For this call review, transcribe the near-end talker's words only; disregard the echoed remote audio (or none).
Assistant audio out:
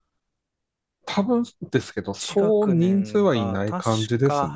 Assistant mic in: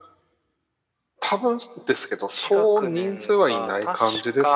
none